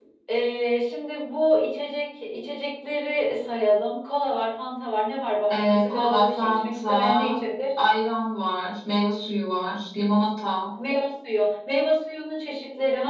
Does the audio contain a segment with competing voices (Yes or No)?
Yes